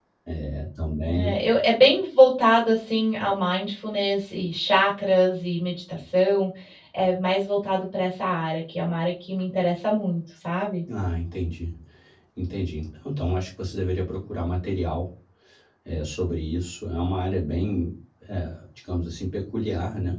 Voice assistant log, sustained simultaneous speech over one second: none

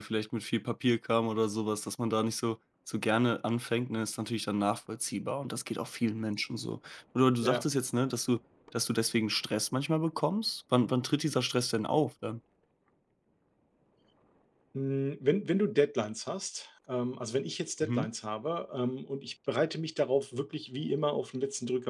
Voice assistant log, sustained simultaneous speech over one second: none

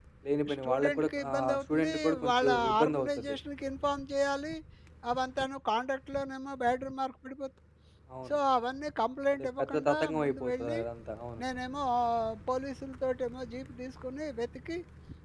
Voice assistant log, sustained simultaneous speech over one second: present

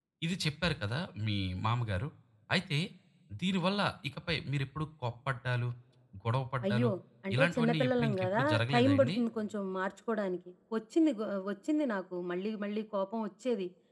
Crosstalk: present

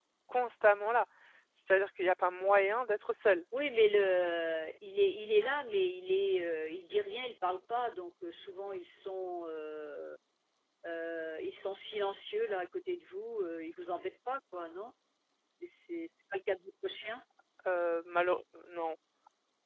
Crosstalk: none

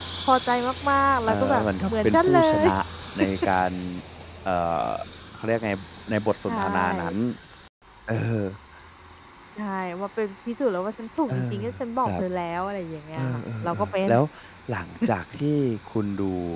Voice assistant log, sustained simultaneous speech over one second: present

